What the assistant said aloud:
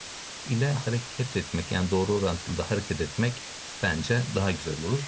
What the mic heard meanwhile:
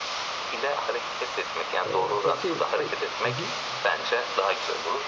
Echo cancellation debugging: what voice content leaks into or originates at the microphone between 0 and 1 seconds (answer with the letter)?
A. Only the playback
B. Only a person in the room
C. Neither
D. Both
A